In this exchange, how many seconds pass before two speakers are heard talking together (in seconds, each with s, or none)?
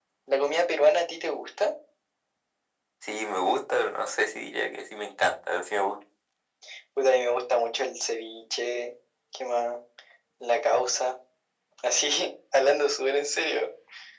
none